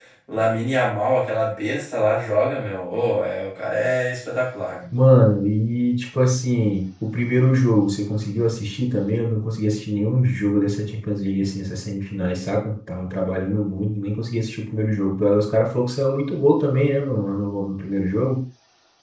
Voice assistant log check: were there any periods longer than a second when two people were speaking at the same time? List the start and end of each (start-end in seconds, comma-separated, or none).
none